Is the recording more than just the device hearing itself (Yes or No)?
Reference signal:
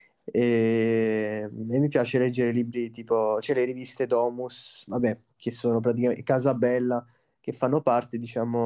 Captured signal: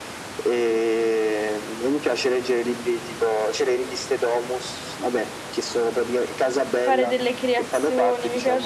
Yes